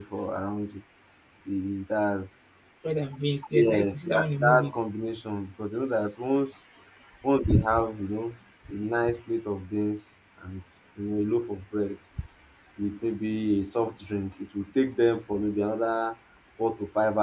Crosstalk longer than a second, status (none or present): present